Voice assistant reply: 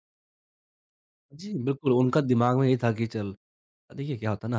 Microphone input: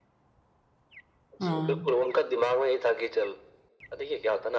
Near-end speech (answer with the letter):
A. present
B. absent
A